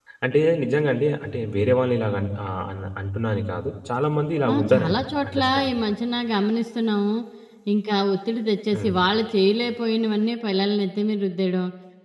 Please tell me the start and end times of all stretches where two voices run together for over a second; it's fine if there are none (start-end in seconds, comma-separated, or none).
4.5-5.8